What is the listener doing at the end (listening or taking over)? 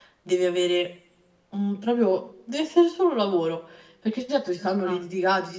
listening